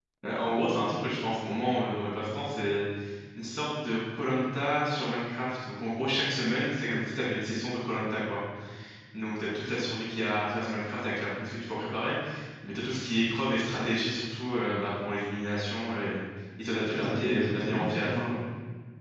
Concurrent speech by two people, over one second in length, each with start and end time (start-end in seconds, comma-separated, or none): 16.8-18.2